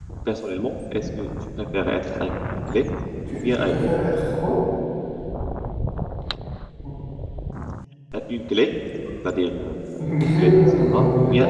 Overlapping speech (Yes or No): Yes